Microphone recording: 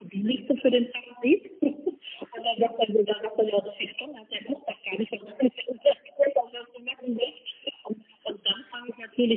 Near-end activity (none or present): none